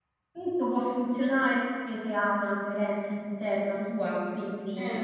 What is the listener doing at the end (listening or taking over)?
listening